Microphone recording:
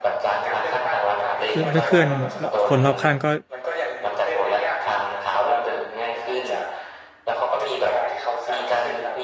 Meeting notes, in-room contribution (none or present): present